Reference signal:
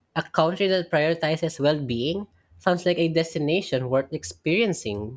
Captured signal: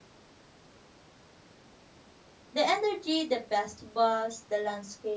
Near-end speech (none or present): present